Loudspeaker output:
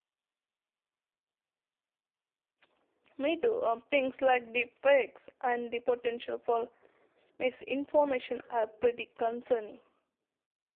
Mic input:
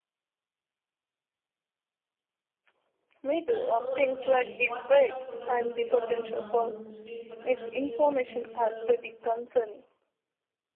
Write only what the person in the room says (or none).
That's so exciting. What kind of photography are you drawn to? Street photography, nature?